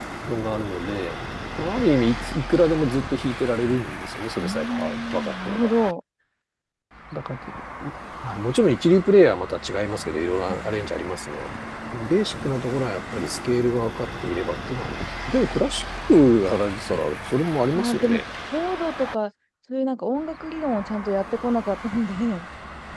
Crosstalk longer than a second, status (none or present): present